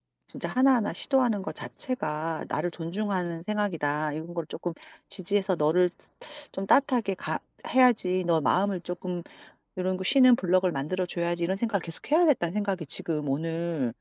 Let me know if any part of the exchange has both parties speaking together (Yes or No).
No